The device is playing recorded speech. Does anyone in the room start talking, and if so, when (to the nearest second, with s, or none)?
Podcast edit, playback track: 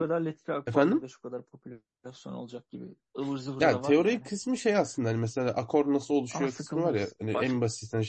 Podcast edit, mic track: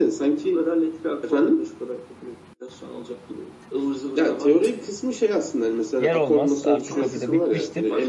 6 s